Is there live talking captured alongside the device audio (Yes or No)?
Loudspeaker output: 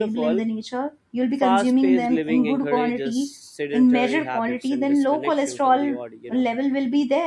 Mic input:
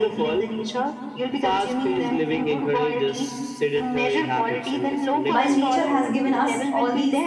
Yes